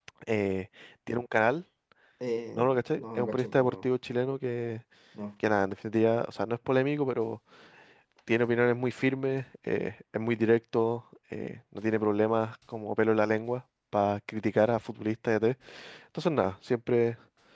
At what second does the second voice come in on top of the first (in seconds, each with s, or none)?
2.6 s